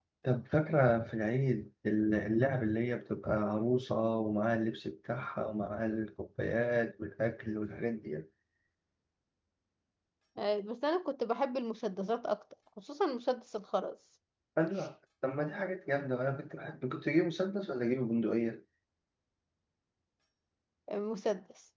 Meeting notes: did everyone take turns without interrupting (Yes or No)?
Yes